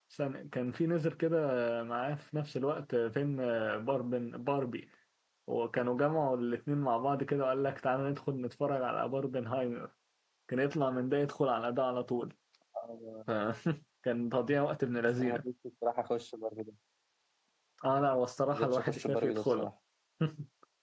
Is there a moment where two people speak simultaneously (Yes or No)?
Yes